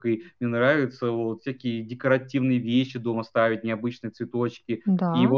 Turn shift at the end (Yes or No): No